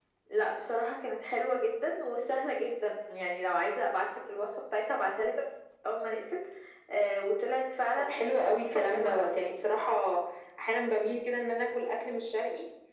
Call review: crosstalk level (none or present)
present